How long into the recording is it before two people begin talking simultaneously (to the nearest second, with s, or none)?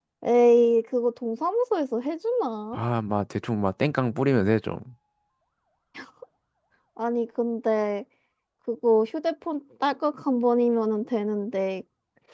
none